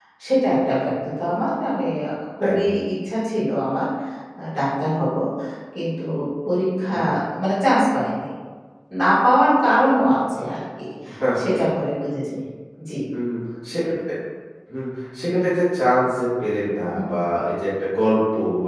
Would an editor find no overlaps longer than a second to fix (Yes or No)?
Yes